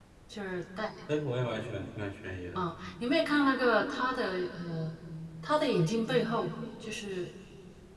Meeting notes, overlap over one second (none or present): none